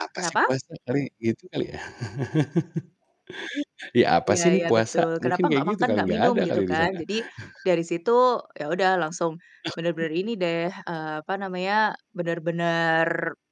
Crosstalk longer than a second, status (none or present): present